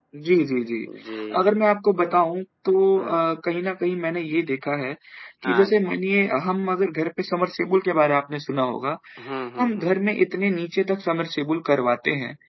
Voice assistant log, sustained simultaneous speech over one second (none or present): none